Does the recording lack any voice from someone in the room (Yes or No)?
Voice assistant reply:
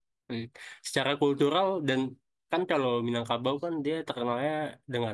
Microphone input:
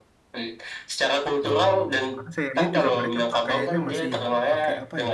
No